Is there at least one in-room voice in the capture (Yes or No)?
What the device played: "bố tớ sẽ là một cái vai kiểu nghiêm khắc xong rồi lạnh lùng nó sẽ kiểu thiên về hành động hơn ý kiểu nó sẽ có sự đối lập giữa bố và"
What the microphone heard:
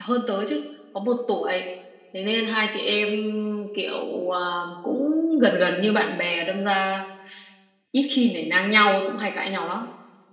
Yes